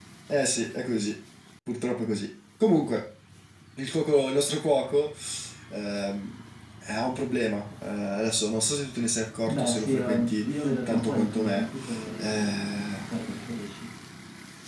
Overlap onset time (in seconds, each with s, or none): 9.5 s